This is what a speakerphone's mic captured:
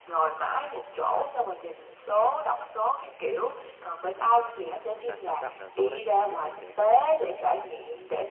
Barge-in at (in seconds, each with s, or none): 4.5 s